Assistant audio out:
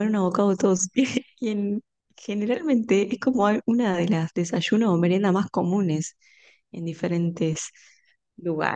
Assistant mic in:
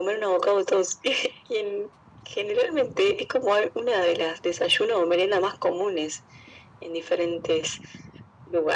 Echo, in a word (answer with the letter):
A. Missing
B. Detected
B